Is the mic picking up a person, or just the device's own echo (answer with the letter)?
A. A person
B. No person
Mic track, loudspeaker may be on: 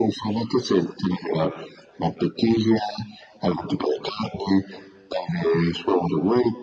B